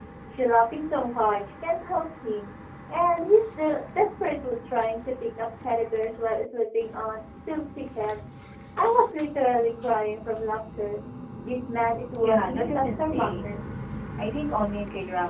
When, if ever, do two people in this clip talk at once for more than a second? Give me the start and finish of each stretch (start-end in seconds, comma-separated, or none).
12.2-13.6